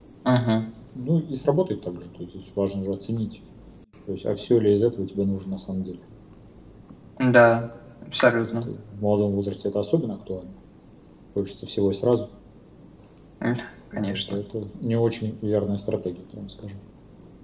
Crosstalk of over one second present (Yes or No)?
No